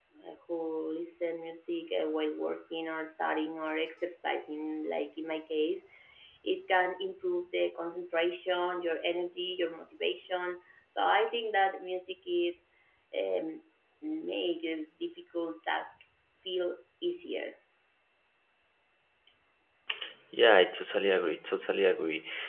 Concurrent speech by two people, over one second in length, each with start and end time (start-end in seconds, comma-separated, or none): none